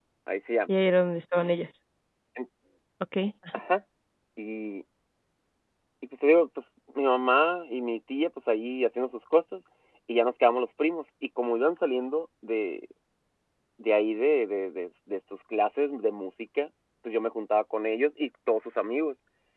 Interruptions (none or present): none